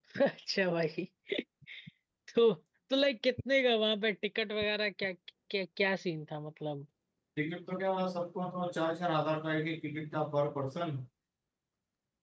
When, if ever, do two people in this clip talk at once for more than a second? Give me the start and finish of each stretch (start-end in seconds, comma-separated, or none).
none